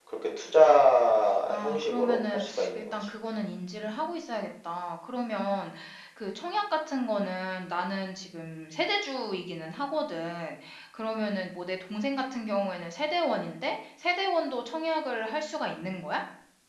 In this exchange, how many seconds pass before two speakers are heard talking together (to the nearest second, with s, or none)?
1 s